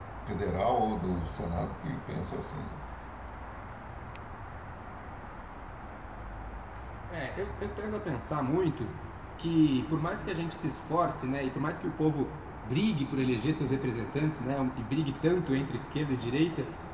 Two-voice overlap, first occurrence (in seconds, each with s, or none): none